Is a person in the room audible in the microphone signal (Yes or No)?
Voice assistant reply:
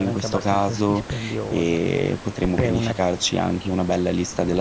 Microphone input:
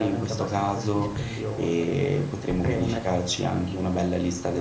No